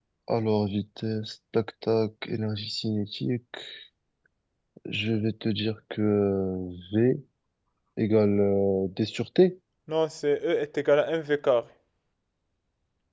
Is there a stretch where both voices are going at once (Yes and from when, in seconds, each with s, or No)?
No